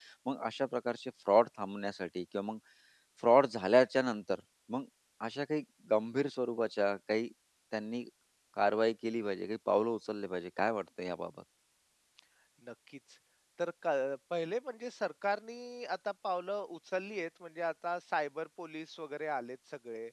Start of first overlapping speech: none

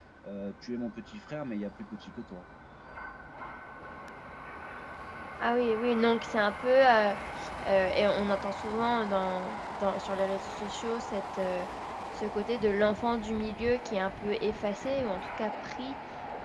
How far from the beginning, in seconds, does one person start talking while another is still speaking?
none

